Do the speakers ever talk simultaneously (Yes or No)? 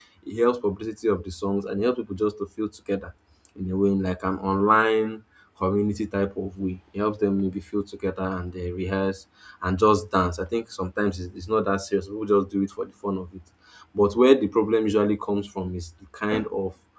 No